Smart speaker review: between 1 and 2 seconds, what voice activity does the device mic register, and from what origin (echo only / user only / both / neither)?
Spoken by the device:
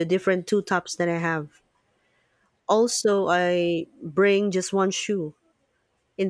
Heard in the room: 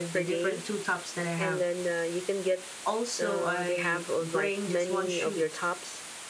both